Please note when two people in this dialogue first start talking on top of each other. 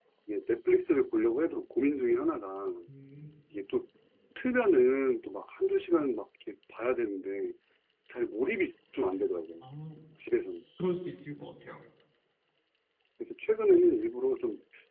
none

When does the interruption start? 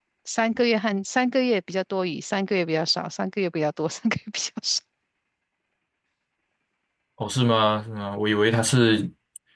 none

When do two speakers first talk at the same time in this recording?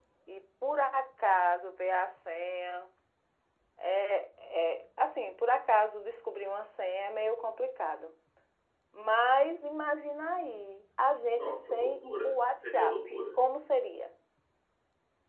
11.3 s

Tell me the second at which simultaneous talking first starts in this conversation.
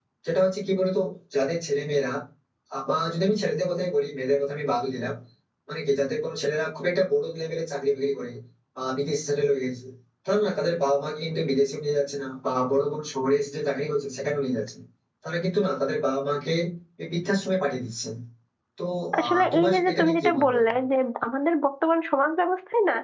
19.2 s

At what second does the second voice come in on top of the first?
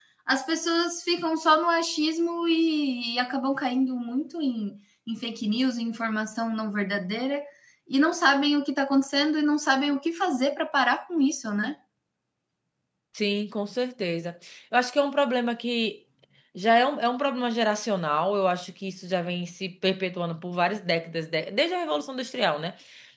none

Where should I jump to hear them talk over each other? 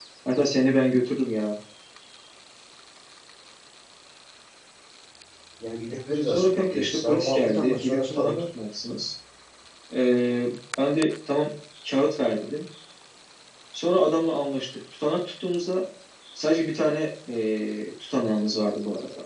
6.3 s

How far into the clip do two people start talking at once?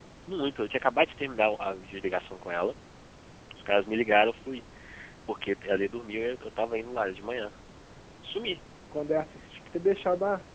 none

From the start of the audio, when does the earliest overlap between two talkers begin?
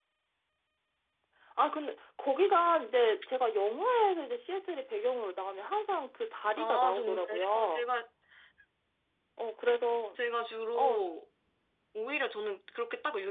6.6 s

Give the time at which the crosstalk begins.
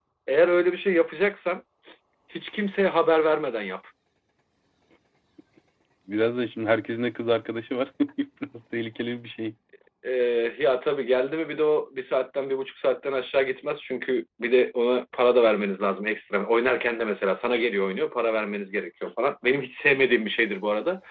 none

